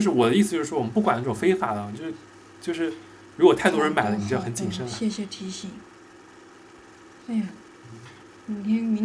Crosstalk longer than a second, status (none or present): present